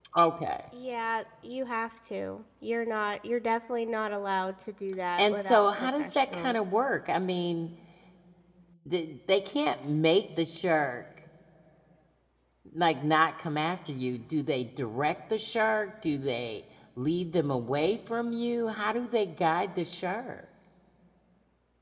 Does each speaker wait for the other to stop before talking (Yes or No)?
No